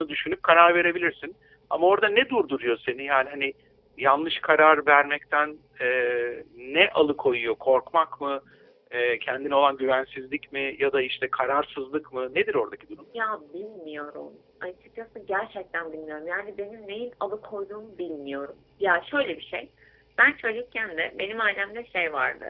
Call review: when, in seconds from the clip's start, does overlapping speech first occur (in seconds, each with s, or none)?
none